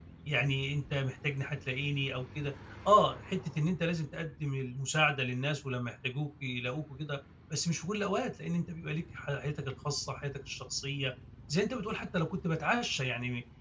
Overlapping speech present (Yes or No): No